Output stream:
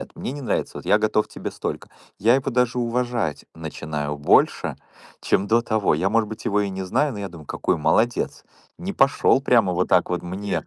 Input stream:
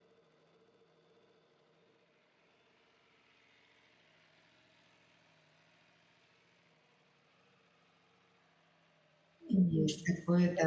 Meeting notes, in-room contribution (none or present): present